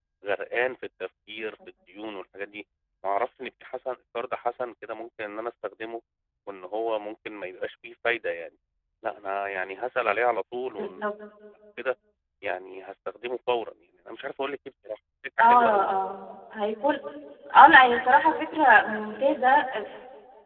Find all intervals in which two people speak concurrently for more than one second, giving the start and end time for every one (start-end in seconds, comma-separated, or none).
none